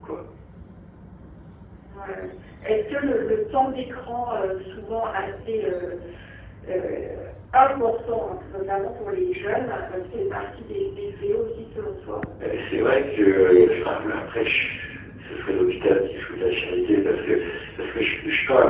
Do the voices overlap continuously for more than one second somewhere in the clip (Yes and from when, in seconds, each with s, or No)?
No